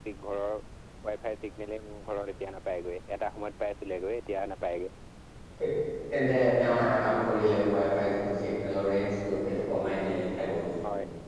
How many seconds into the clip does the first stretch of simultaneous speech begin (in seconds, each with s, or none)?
none